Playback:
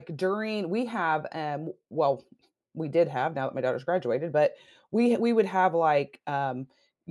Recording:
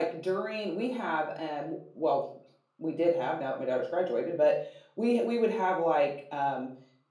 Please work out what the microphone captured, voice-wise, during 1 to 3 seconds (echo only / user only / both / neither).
echo only